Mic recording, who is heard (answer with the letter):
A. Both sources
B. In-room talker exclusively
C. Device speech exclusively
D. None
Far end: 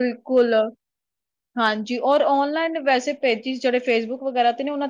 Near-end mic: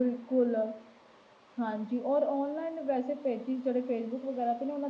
C